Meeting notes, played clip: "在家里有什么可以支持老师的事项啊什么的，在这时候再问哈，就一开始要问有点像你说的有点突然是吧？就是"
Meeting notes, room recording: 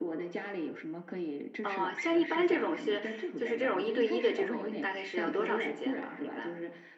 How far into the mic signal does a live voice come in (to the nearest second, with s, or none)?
2 s